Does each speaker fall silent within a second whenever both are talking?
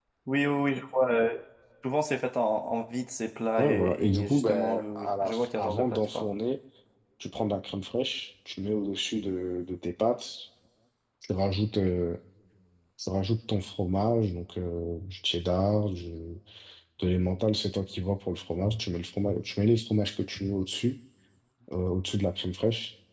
No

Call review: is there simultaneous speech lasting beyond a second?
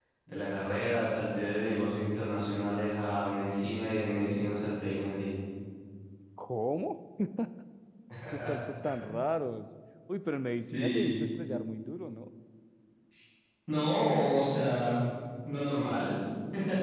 No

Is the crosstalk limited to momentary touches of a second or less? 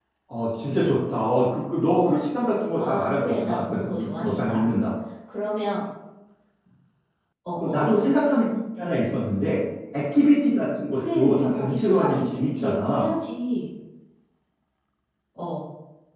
No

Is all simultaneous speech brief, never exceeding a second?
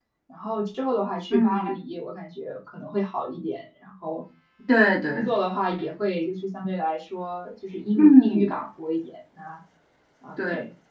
Yes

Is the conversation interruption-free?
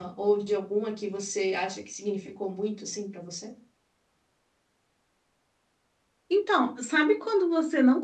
Yes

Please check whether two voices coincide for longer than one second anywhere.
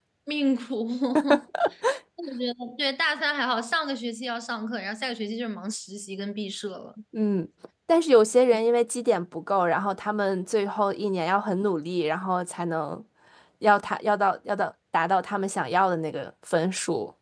No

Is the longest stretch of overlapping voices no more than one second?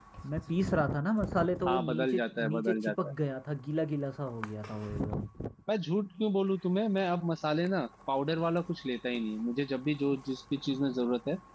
No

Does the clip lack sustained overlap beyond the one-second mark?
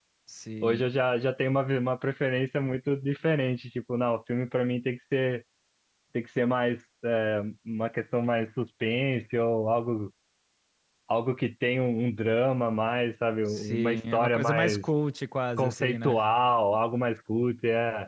No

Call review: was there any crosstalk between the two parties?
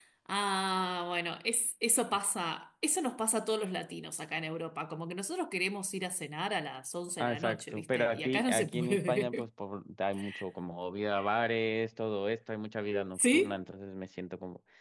Yes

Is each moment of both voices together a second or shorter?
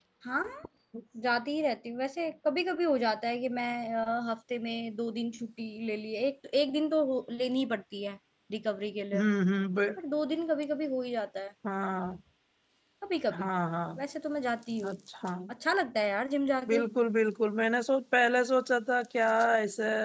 Yes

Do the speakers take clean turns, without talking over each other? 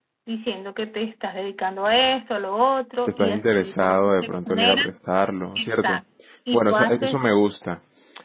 No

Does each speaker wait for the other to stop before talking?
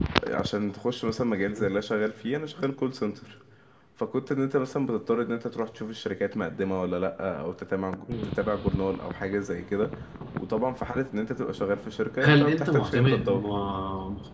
No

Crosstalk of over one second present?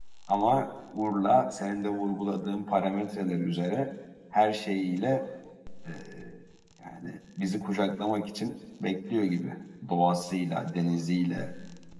No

